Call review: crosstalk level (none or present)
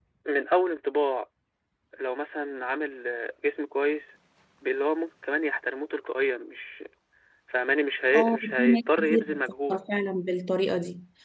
present